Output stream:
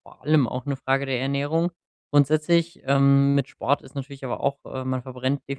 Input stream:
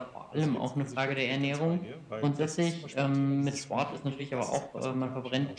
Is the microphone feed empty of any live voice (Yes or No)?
No